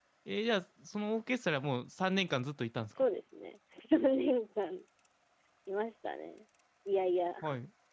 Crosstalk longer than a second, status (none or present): none